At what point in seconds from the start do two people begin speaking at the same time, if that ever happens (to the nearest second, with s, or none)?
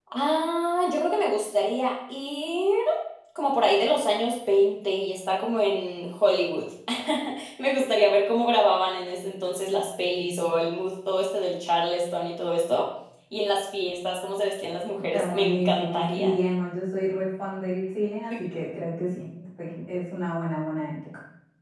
15 s